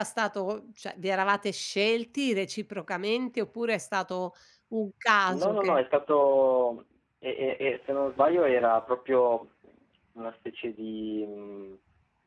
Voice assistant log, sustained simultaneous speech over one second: none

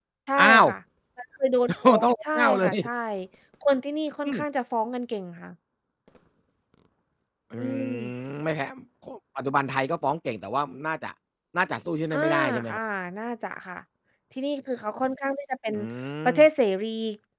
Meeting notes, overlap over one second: present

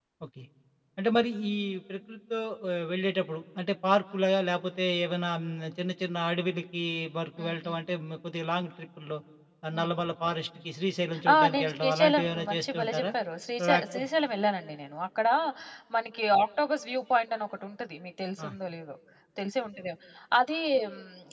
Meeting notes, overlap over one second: present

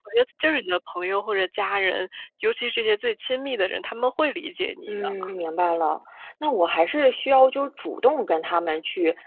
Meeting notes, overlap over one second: none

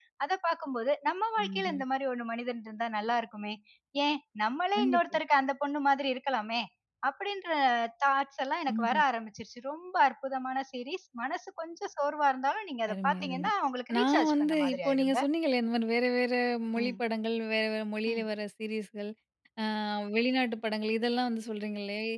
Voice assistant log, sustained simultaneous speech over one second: present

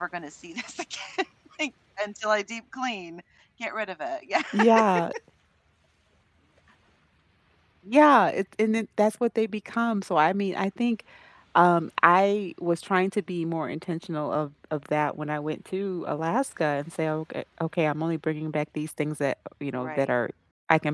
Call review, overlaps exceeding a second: none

